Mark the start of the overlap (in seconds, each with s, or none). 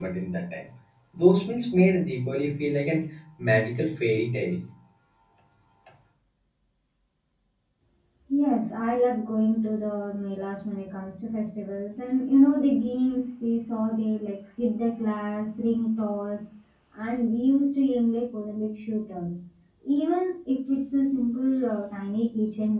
none